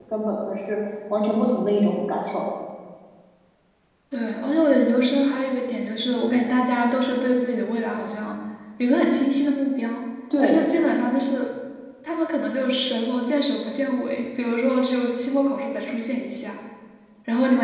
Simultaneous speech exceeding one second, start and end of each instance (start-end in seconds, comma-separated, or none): none